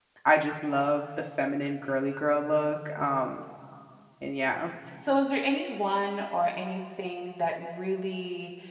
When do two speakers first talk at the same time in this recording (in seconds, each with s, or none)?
none